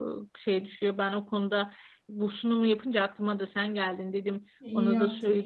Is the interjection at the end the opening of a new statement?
Yes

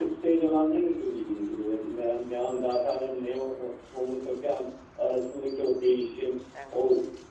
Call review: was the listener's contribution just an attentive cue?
Yes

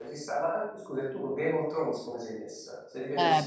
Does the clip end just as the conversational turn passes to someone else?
Yes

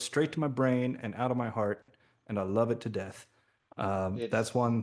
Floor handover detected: No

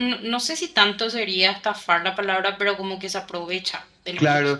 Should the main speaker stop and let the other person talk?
Yes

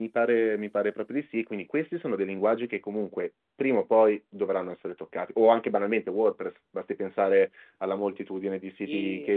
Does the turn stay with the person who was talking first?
Yes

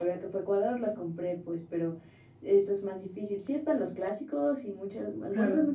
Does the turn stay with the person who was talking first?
Yes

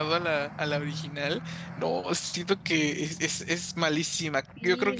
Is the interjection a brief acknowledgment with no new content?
No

